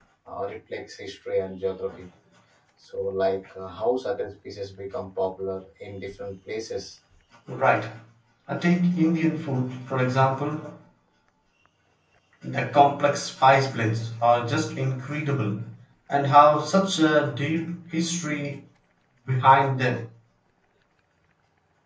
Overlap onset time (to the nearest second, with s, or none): none